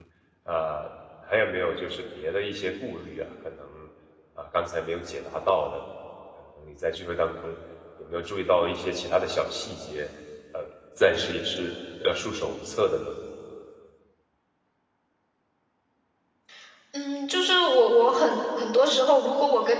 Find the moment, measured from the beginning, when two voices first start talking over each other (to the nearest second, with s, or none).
none